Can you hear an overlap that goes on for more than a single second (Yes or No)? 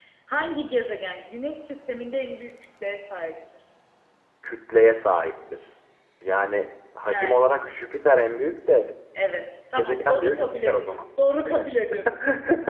Yes